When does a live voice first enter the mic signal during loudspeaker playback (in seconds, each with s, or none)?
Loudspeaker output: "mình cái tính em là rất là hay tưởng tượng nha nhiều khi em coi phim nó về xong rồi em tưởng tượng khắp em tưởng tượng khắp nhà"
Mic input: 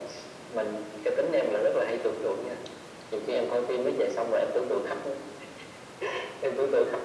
none